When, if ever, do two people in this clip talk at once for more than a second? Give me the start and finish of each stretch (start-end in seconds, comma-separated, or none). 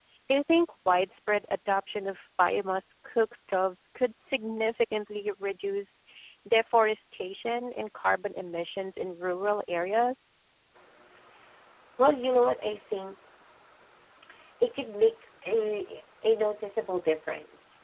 none